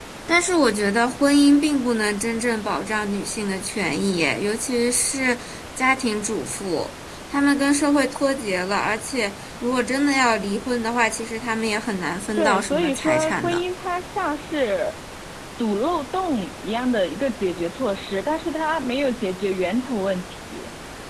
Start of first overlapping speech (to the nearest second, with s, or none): 12 s